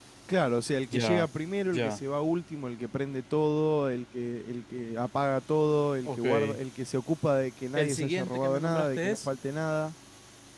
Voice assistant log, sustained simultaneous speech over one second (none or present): present